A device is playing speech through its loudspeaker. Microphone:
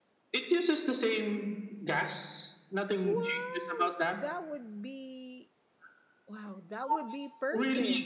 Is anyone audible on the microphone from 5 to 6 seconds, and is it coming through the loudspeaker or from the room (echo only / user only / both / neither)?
user only